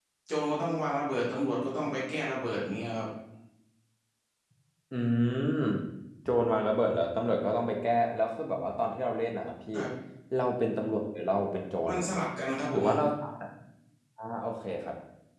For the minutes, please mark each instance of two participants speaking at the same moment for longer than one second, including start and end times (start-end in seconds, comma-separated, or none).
none